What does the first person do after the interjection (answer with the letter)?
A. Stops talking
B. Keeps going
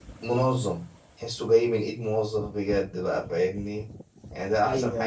B